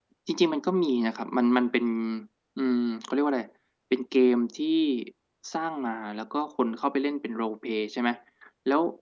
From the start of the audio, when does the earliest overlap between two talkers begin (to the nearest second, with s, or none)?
none